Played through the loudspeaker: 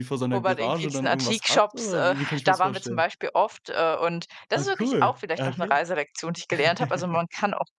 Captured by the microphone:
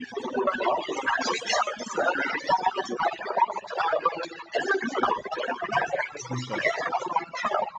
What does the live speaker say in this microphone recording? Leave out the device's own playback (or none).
Super.